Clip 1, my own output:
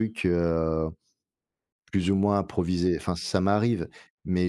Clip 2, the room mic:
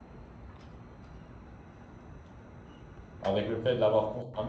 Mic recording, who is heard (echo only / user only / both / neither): user only